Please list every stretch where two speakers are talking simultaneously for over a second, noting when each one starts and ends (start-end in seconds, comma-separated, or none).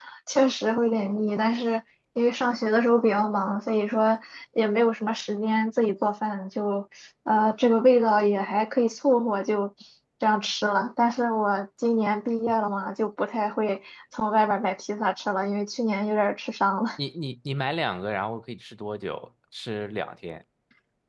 none